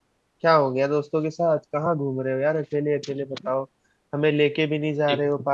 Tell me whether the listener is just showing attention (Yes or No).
Yes